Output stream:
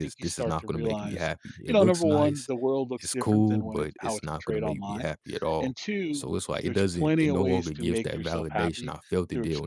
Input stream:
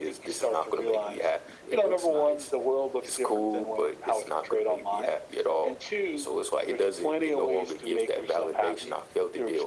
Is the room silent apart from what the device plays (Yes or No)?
Yes